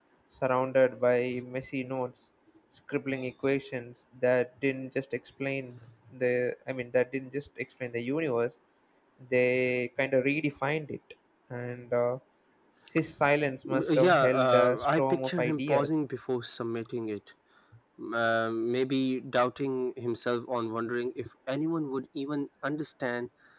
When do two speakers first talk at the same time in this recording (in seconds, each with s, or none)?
13.6 s